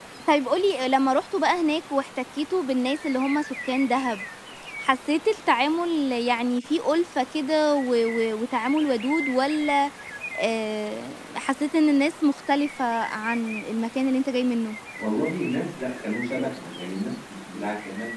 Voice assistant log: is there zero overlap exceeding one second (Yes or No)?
Yes